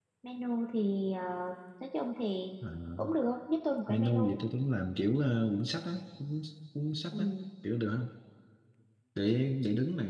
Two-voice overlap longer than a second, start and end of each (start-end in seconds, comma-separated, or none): none